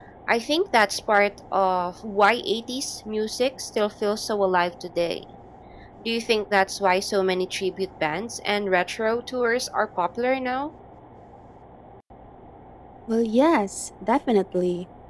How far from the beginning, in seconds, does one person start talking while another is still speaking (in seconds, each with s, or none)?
none